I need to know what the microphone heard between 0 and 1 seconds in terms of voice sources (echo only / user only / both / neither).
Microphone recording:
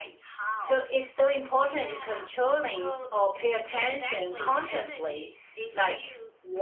both